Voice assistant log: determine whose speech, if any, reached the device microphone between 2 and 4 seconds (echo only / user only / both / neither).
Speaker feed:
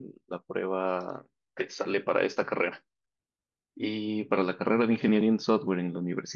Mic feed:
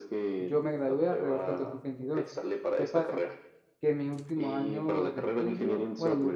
both